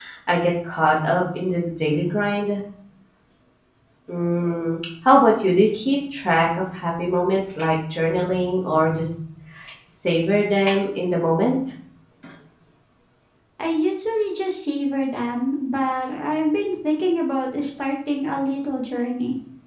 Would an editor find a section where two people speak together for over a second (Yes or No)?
No